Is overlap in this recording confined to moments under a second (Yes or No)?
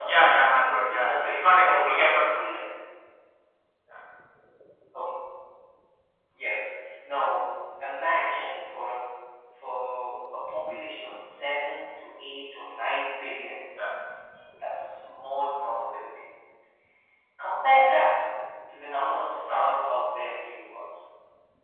No